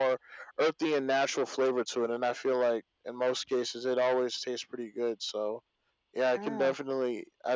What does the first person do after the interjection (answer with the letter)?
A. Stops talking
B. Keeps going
B